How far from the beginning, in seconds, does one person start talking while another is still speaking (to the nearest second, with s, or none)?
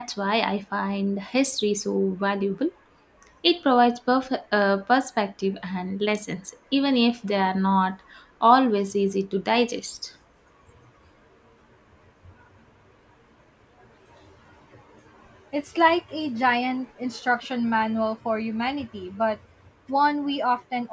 none